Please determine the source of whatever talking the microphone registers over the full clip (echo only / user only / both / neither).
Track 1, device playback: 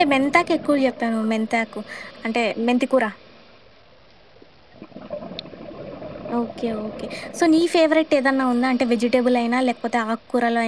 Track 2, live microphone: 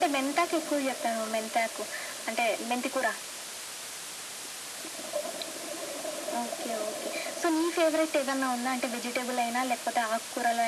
echo only